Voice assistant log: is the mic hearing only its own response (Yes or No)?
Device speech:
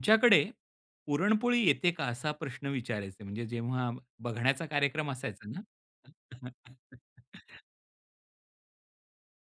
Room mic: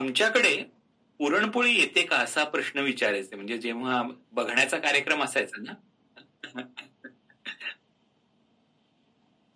Yes